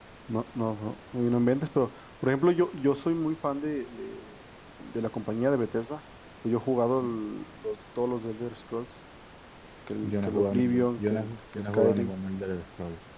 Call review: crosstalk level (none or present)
present